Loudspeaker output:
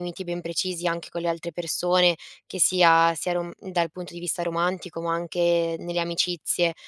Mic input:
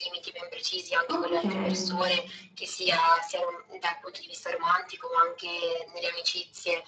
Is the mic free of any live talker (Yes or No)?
No